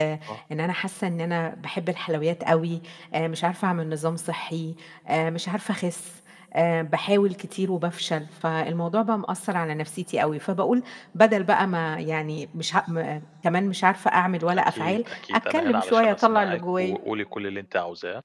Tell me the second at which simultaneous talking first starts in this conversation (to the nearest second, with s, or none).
14 s